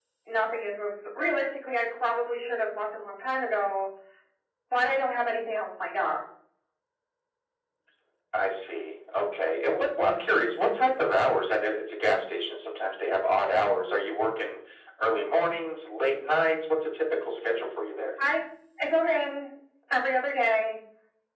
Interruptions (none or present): none